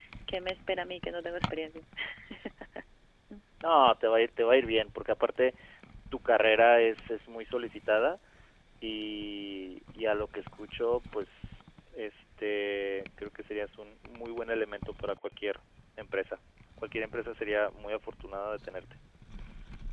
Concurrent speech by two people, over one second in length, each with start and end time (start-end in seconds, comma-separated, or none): none